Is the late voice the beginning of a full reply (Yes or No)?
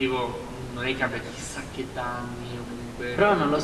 Yes